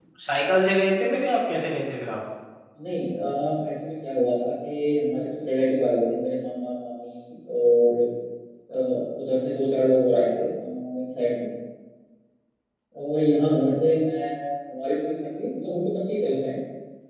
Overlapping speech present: No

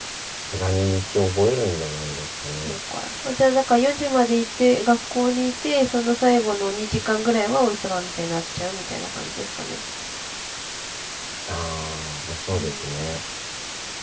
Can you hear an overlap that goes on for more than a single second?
No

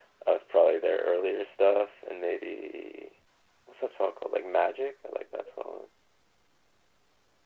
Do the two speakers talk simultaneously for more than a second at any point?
No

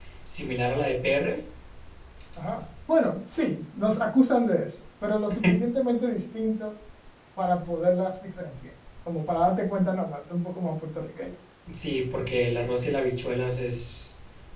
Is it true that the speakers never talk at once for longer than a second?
Yes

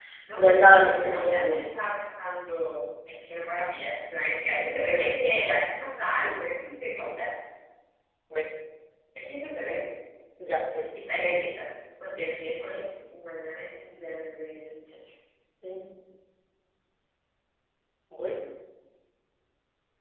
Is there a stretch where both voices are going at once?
Yes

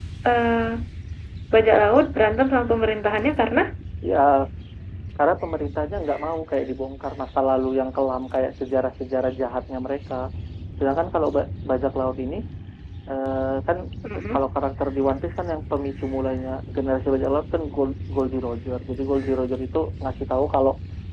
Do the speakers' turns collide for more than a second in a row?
No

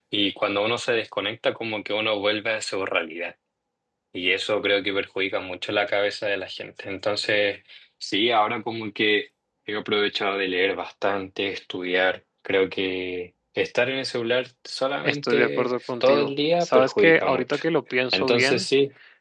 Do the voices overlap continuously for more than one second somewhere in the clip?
Yes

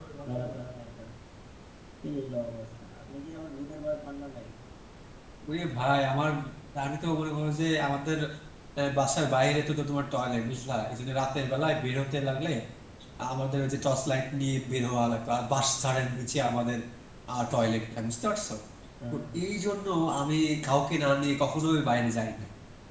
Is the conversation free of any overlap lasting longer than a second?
Yes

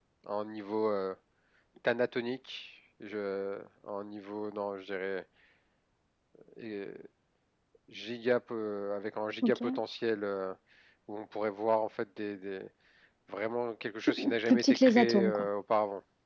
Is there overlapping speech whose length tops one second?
Yes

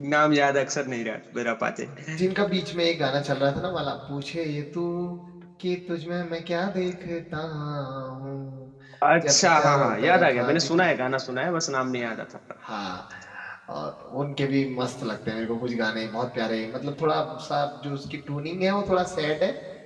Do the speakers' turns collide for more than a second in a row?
Yes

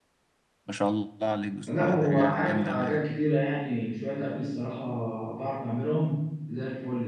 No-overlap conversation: No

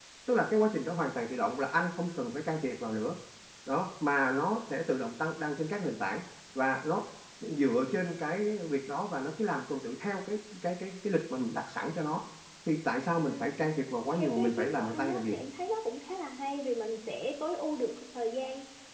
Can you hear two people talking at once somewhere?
Yes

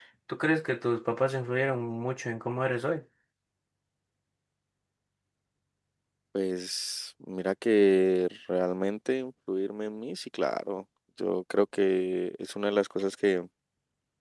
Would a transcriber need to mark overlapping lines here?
No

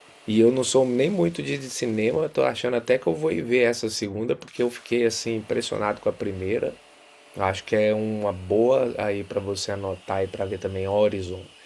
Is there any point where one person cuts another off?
No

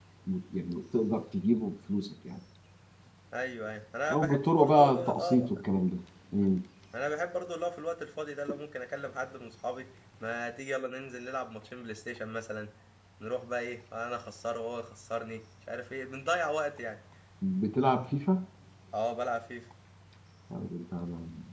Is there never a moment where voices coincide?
No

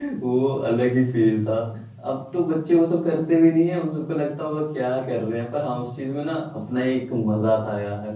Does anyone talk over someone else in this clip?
No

